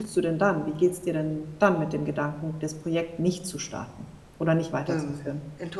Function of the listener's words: taking over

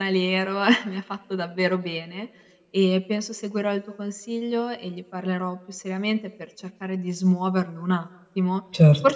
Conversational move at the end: listening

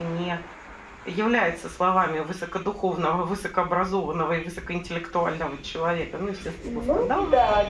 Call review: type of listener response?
taking over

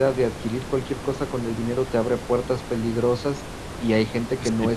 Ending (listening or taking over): listening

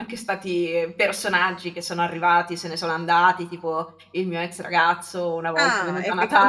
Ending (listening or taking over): taking over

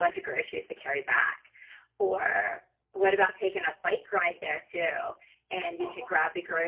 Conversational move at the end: listening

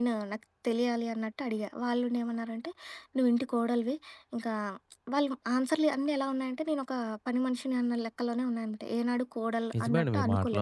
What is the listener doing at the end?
taking over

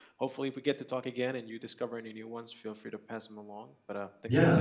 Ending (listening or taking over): taking over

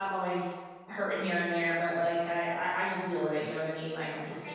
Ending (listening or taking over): taking over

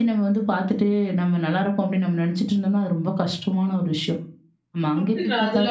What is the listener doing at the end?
taking over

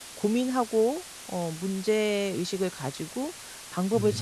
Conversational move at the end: listening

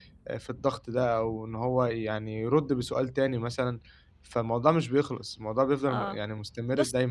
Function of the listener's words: taking over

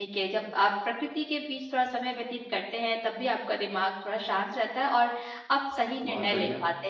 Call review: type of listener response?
listening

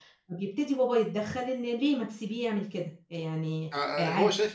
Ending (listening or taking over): taking over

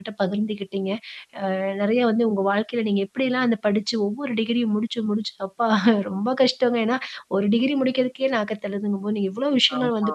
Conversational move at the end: listening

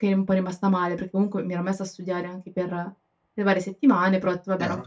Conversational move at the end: listening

